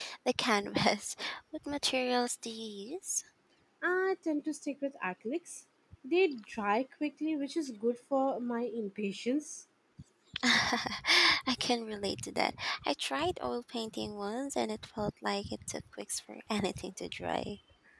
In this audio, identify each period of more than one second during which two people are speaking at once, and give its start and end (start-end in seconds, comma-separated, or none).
none